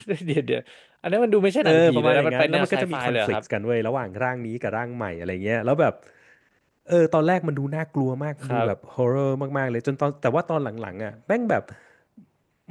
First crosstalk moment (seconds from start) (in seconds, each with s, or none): 1.6 s